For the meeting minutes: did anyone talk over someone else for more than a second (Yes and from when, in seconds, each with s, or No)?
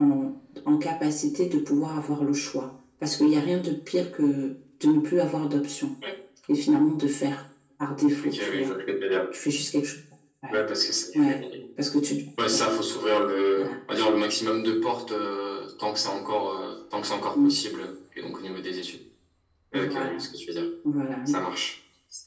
No